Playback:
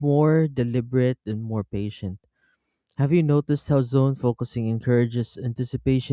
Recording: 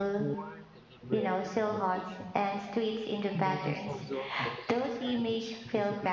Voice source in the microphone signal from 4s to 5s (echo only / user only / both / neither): both